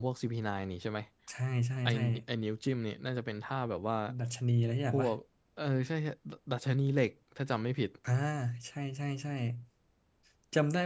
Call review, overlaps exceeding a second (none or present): none